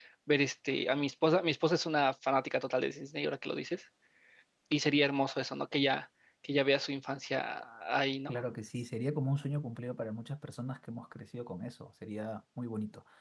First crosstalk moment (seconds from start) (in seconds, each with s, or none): none